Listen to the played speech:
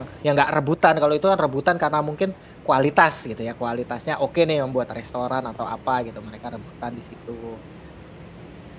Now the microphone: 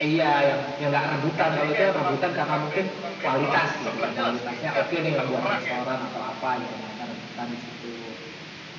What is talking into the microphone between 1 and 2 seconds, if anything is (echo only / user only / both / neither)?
both